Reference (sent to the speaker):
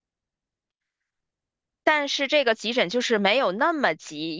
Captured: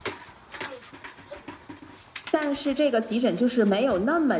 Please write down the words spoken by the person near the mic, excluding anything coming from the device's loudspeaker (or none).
none